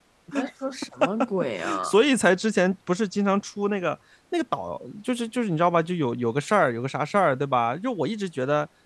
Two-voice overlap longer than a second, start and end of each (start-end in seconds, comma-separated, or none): none